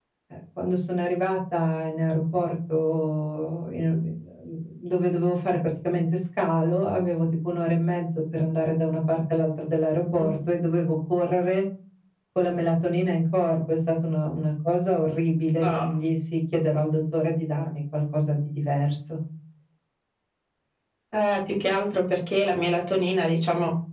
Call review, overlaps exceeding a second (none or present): none